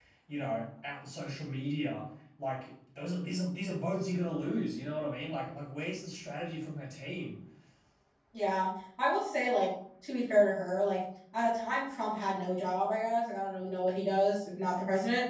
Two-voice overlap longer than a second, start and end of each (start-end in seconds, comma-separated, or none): none